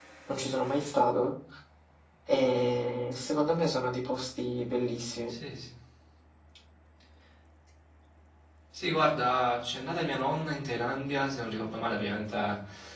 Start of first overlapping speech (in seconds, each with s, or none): none